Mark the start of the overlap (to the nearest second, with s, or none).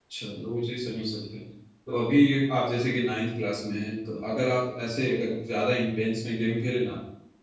none